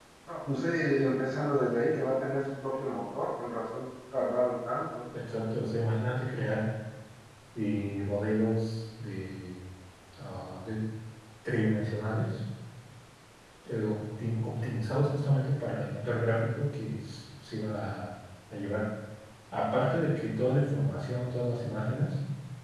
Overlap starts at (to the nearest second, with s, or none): none